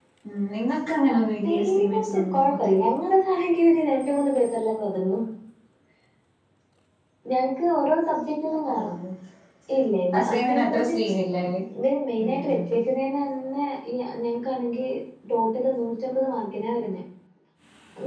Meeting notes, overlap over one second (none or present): present